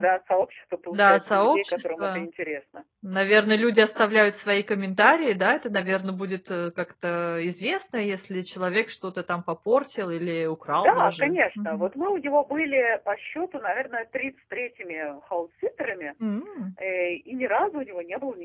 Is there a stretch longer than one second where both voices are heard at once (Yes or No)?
Yes